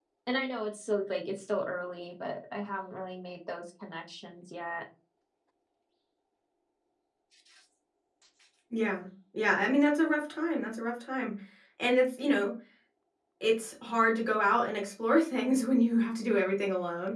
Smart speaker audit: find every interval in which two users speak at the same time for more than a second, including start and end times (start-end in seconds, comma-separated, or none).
none